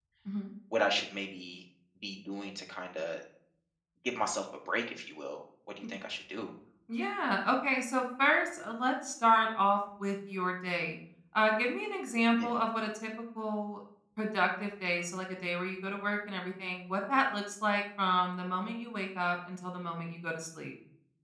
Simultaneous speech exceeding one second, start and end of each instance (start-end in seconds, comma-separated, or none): none